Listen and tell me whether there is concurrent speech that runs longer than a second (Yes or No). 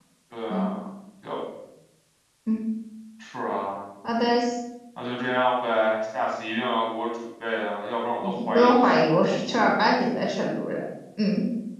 Yes